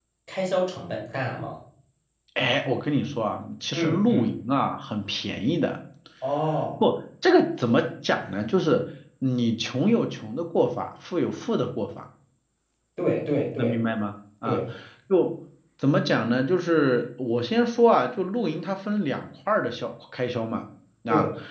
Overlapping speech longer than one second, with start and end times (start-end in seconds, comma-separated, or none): none